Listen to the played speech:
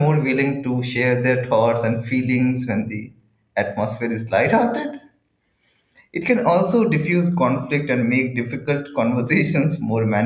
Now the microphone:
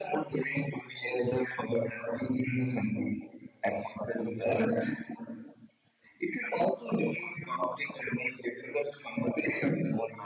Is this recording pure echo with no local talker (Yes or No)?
Yes